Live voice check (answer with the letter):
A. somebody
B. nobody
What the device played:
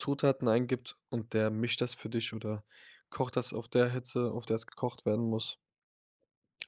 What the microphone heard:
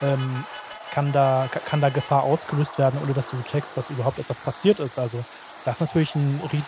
A